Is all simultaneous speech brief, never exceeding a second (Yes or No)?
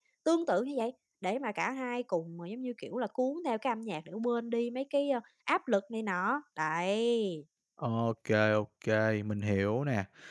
Yes